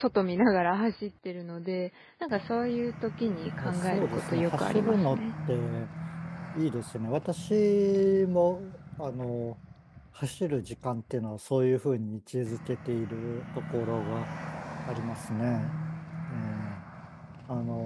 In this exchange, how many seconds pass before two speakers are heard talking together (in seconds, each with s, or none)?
3.5 s